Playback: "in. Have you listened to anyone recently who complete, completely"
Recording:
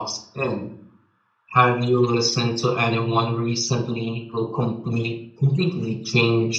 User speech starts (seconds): none

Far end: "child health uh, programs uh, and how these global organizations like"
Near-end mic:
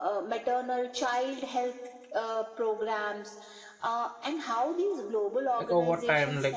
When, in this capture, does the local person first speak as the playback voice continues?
5.5 s

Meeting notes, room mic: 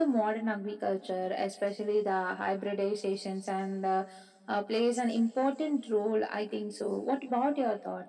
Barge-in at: none

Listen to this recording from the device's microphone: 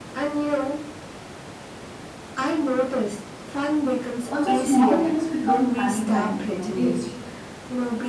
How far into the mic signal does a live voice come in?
4.3 s

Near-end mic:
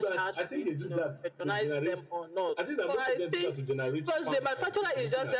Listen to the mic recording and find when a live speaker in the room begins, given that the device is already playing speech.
none

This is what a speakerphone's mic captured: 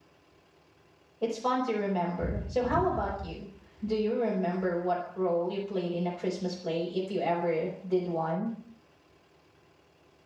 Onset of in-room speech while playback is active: 1.2 s

